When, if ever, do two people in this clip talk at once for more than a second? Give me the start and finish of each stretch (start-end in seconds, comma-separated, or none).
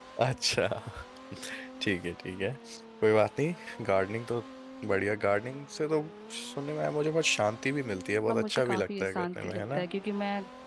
8.3-9.8